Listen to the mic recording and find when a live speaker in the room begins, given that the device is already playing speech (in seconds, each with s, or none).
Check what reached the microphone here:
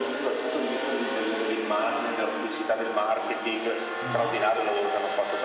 4.0 s